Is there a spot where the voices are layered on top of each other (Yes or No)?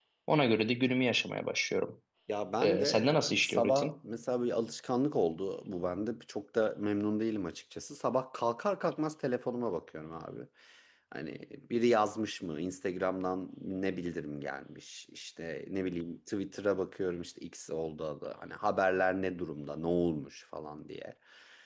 Yes